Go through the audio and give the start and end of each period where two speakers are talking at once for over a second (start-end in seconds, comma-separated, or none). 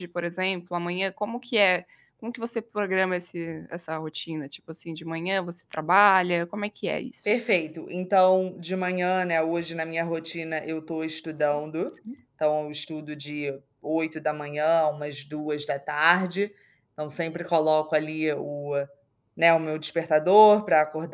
none